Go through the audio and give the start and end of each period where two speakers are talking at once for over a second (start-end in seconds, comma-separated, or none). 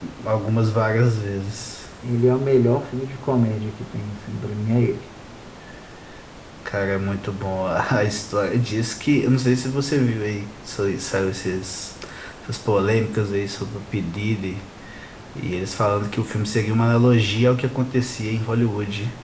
none